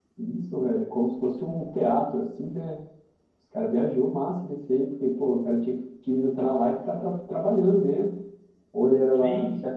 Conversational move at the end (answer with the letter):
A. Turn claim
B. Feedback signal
A